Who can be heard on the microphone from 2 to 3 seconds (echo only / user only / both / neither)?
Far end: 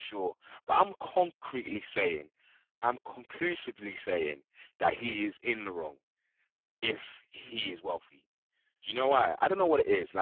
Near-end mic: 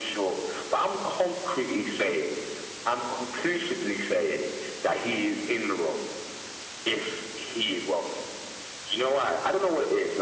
echo only